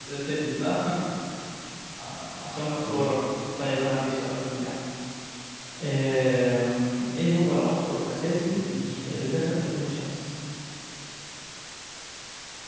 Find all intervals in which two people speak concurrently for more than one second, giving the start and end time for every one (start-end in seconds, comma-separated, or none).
none